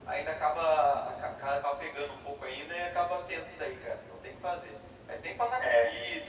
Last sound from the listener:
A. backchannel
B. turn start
A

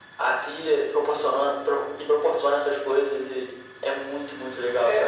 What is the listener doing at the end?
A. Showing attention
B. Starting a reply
B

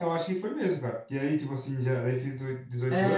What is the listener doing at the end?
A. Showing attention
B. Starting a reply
B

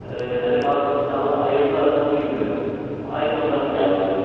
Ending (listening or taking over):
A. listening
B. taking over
A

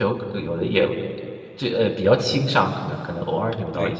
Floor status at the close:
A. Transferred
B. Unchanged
A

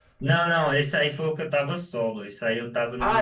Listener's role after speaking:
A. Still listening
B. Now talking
B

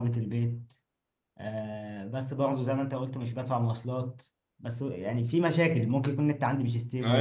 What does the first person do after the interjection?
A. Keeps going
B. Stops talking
B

